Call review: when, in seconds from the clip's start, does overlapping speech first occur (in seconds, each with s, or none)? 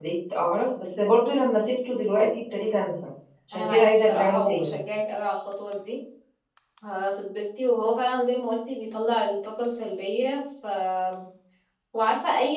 3.5 s